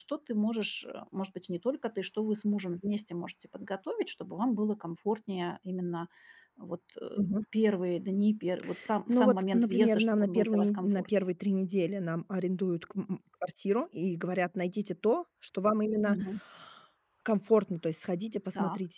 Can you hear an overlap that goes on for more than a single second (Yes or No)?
Yes